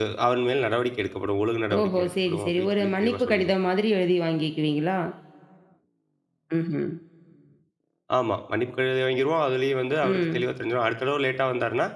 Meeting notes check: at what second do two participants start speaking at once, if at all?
1.8 s

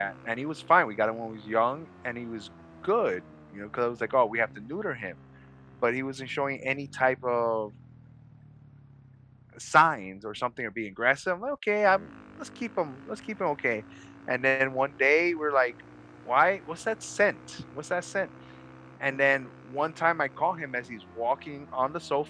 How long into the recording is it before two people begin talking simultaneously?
none

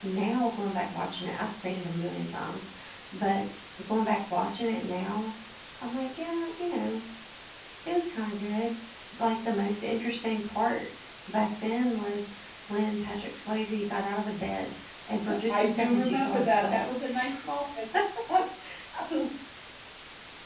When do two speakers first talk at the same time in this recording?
15.3 s

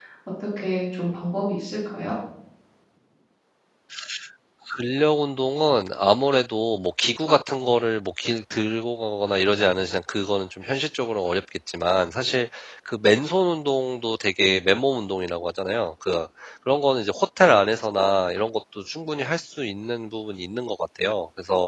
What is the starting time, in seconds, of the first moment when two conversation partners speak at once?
none

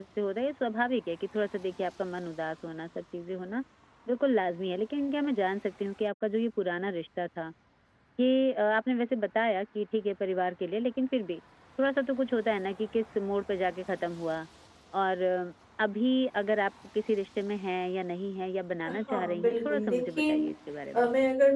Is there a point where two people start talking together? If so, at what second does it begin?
19.1 s

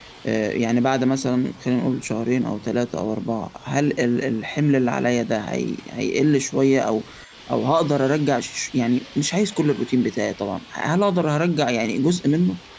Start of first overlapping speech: none

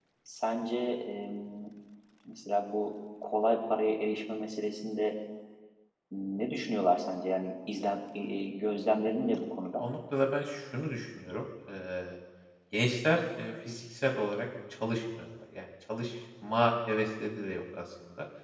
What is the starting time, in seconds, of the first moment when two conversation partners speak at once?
none

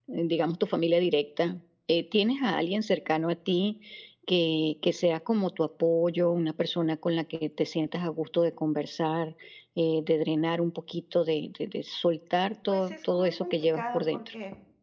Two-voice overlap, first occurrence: 12.7 s

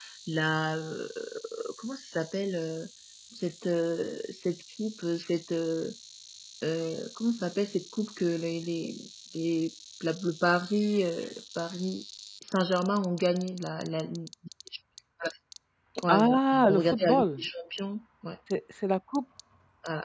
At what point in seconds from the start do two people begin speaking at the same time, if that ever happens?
16.1 s

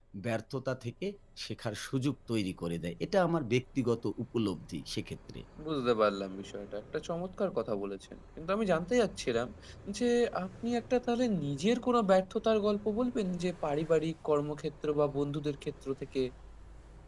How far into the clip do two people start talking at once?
none

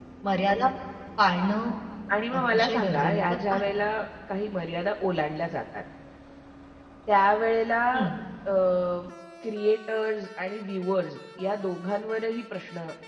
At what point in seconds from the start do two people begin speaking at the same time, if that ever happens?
2.4 s

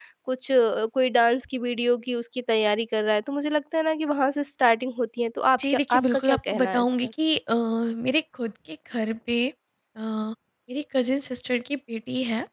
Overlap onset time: 5.5 s

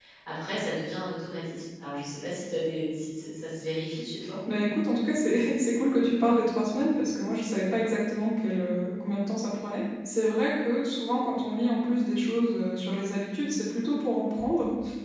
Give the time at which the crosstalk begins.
none

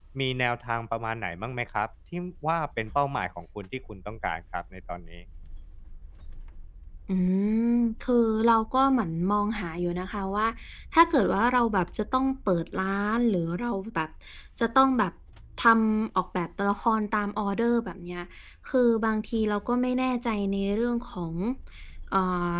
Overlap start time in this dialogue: none

